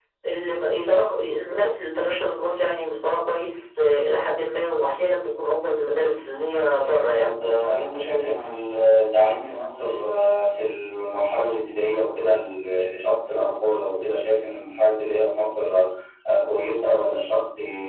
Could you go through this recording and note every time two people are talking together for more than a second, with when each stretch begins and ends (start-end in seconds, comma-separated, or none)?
none